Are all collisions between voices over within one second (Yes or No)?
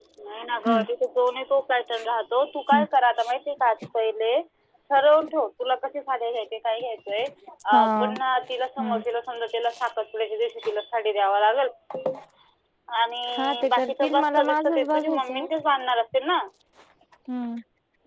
No